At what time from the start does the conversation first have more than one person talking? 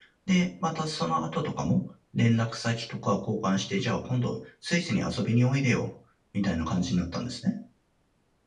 none

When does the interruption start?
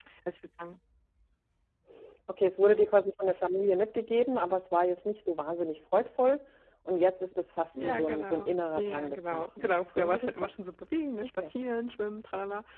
7.7 s

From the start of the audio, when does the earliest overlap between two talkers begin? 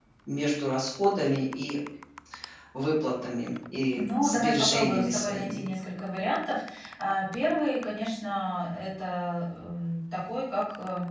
4.0 s

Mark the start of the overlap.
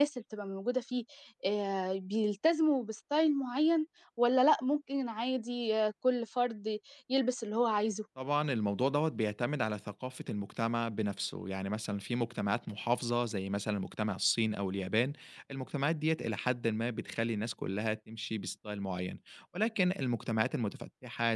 none

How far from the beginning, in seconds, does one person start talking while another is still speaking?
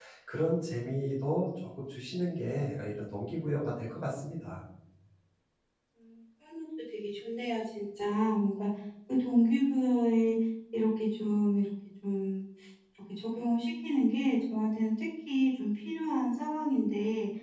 none

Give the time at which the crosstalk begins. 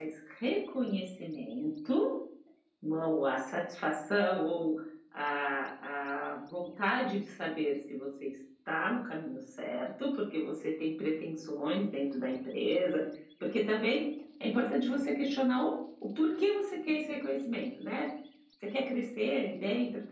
none

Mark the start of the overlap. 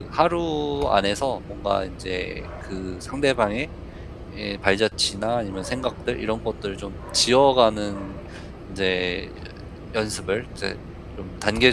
none

